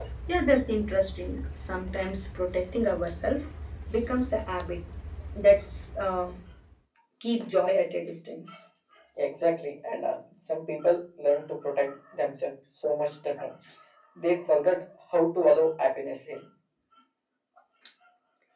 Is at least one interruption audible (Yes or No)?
No